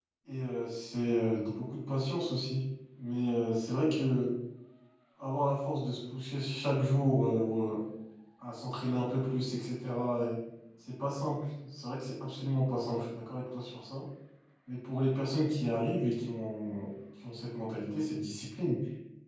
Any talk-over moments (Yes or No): No